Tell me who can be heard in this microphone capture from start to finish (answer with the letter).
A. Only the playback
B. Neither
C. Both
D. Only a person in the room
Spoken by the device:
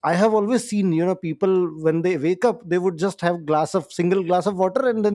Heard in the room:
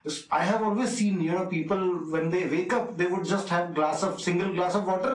A